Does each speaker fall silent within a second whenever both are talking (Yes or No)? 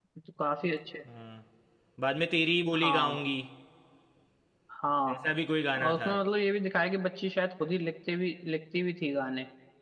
Yes